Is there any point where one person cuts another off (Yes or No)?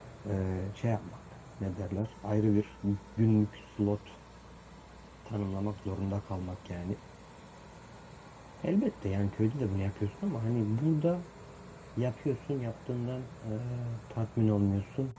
No